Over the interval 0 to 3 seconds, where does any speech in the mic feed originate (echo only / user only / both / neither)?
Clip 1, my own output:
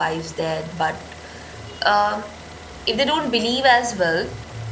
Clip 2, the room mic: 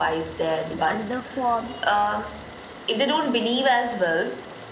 both